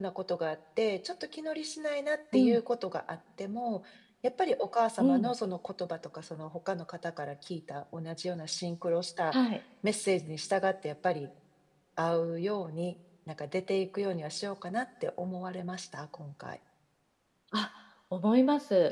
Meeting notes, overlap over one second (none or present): none